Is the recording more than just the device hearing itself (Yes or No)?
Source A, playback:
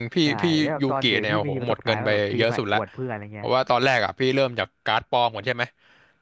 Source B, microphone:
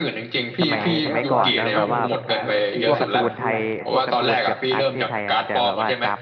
Yes